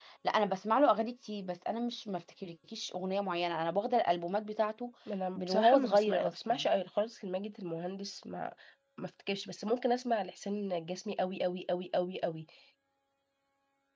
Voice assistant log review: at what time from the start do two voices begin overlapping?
5.3 s

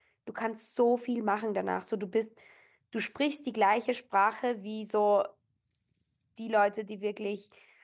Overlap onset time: none

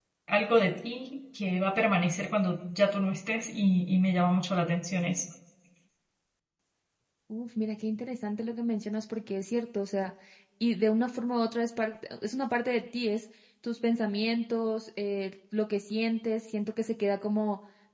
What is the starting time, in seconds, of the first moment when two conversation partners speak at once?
none

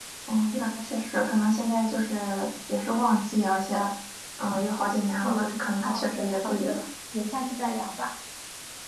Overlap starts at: 5.2 s

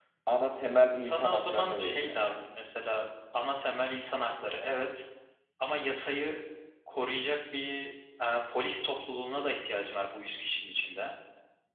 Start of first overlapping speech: 1.0 s

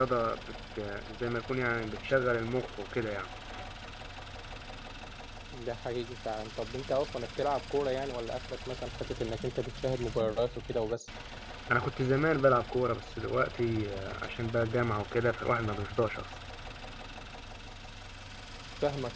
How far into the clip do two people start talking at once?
none

